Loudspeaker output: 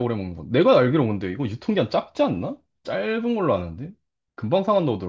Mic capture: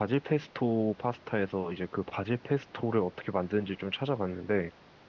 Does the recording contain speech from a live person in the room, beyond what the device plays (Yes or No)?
Yes